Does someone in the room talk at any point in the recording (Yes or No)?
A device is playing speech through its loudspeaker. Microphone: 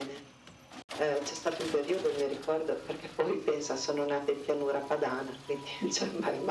No